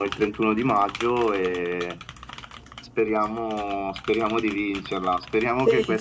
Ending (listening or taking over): listening